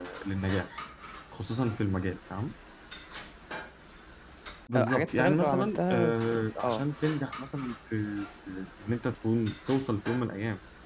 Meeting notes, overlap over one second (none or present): present